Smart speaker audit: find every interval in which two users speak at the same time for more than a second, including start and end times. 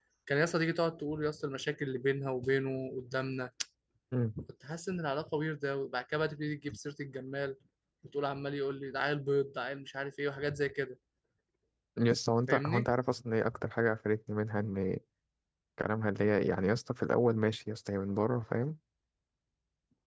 none

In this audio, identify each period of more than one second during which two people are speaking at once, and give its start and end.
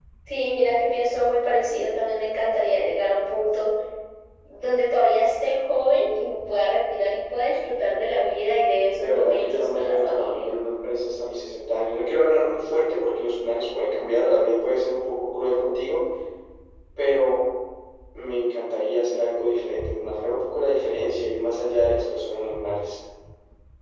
8.9-10.5

